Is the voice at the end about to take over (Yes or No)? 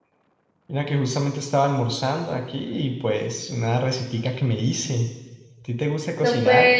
Yes